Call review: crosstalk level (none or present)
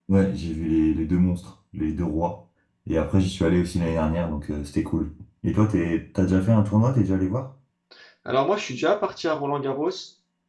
none